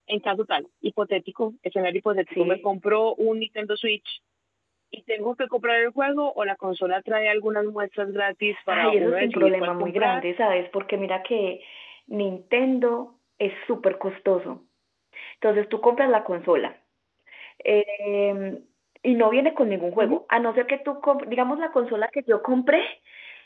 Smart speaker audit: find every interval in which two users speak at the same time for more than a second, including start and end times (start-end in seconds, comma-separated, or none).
8.7-10.2